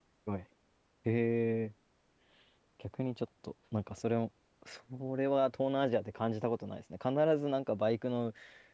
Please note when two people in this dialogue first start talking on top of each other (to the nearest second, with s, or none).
none